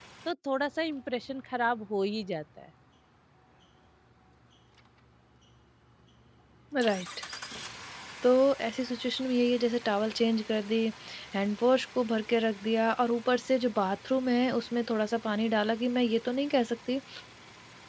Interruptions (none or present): none